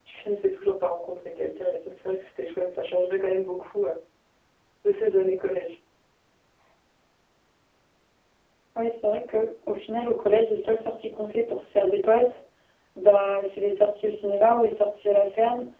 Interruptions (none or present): none